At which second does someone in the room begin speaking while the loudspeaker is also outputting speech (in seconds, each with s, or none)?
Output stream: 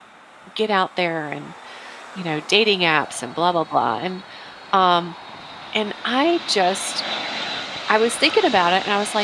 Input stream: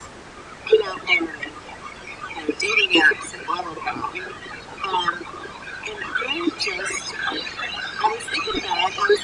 none